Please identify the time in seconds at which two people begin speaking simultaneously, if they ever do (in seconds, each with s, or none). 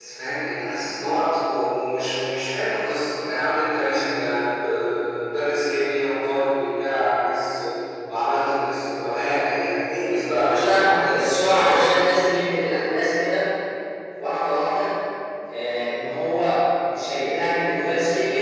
10.4 s